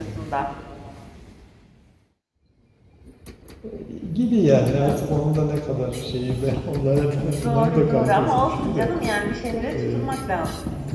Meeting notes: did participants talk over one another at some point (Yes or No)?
Yes